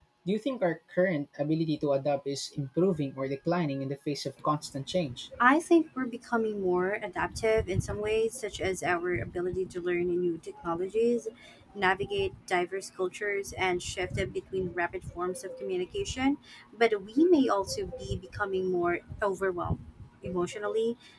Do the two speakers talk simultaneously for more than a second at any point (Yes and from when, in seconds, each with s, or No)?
No